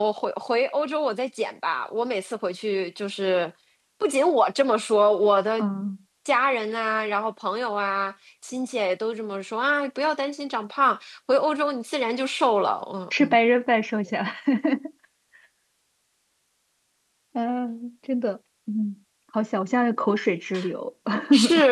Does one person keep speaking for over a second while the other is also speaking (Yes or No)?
No